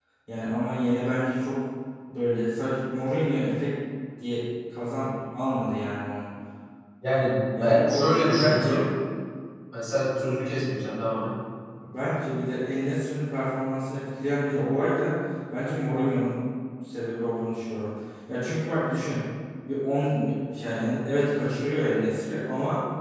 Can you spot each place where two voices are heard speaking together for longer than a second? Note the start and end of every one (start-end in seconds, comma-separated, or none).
7.6-8.8